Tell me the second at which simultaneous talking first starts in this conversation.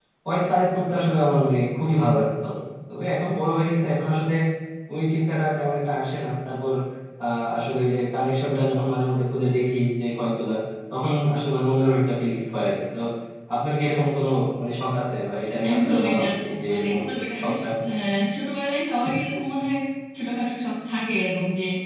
15.7 s

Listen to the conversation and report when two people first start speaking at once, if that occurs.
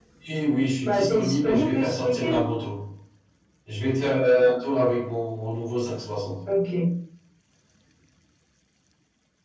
0.8 s

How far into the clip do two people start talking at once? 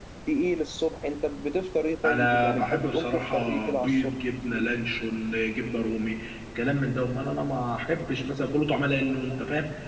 2.0 s

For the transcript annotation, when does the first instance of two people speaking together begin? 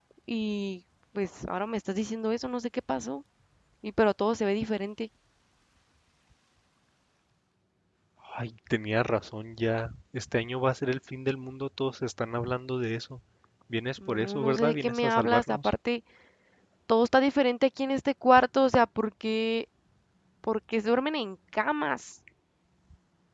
14.1 s

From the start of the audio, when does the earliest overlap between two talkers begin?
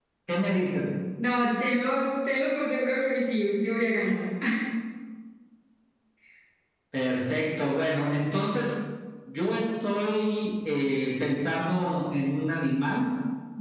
none

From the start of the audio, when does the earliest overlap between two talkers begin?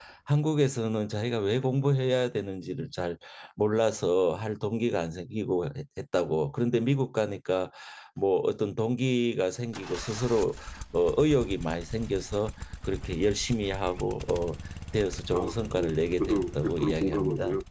15.3 s

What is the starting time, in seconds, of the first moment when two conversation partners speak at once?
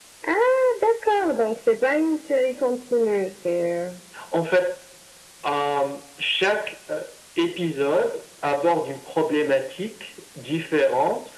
none

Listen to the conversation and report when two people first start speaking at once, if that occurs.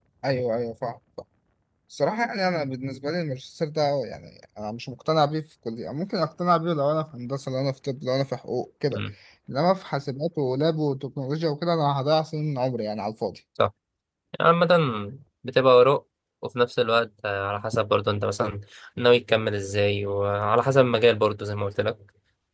none

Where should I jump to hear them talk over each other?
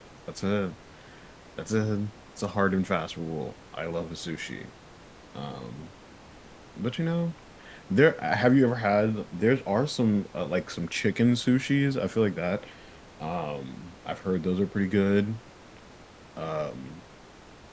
none

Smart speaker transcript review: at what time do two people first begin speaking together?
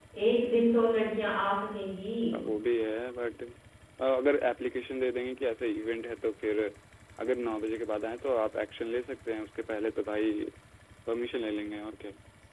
none

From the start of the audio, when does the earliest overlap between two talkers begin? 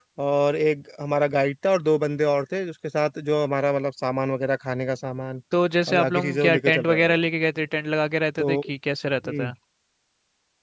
5.9 s

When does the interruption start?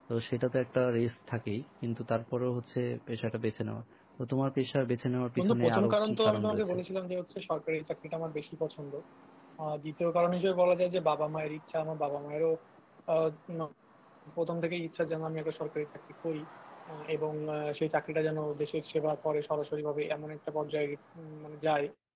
5.4 s

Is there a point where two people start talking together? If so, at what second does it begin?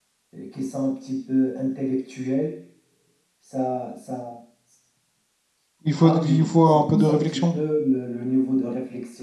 6.0 s

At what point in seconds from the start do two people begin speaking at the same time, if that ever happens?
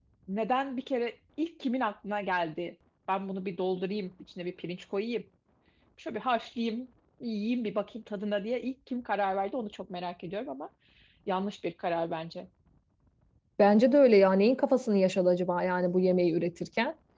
none

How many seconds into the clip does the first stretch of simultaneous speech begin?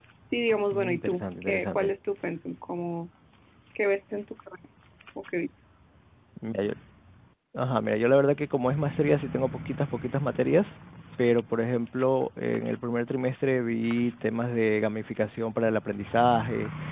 0.7 s

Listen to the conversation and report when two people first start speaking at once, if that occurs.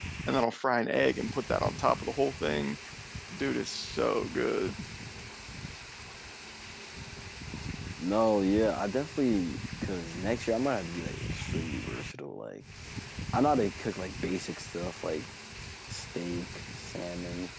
none

